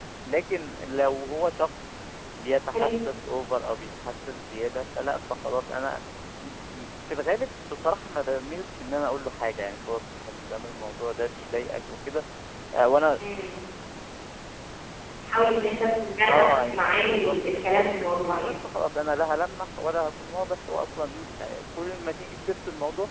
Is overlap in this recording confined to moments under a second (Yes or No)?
No